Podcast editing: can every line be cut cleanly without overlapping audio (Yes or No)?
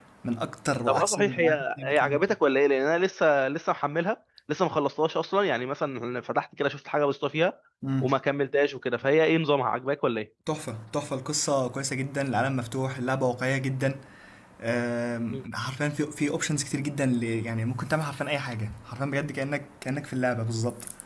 No